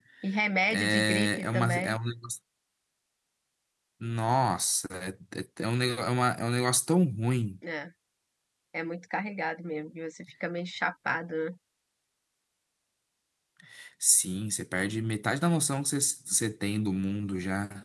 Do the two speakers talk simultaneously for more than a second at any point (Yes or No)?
Yes